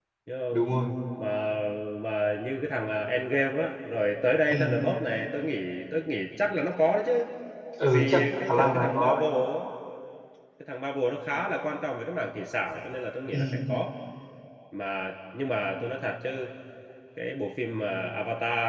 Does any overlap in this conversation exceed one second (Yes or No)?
Yes